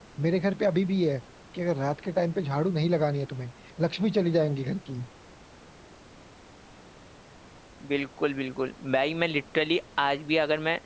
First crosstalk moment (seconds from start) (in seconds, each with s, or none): none